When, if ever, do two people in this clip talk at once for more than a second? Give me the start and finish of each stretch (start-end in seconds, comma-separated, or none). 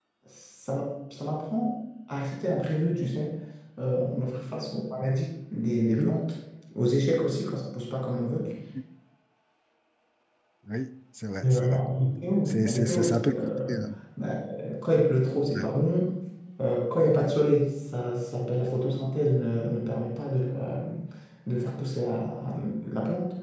12.5-13.7